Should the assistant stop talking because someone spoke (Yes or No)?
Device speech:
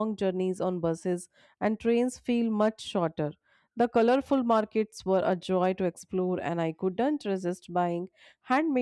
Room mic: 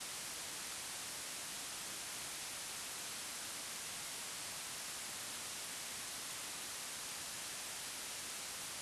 No